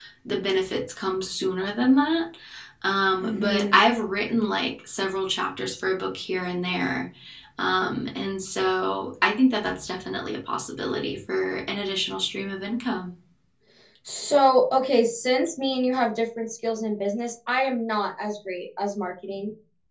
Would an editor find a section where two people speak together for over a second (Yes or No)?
No